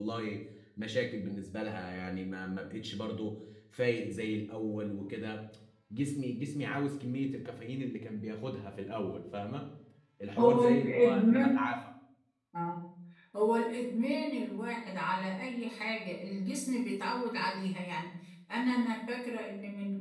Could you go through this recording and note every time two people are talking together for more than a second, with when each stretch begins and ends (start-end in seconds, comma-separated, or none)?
10.4-11.6